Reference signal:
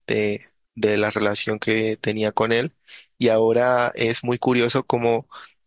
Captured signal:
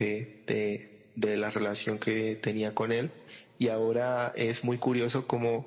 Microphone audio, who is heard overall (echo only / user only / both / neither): echo only